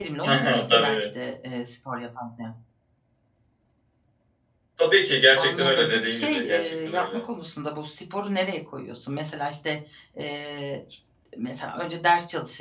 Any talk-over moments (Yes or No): Yes